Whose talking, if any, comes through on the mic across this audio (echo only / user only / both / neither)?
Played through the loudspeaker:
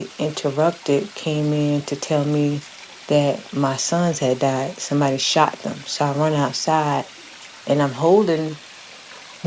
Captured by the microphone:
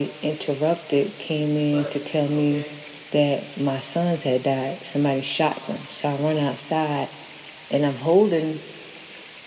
both